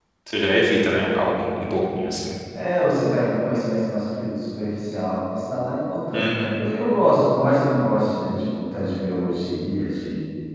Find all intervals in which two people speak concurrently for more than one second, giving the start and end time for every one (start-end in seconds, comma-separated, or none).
none